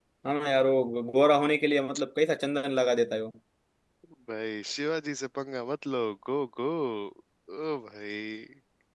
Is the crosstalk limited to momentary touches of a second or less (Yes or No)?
Yes